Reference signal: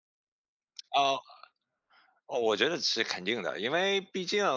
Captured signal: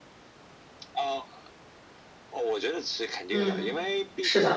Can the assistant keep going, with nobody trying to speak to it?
No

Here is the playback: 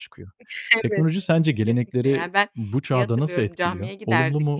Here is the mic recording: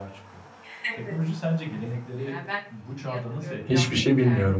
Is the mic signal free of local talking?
No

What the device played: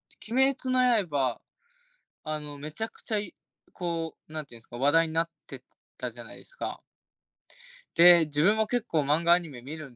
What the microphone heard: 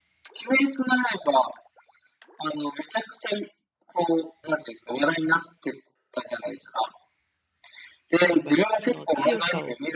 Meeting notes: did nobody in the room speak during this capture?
No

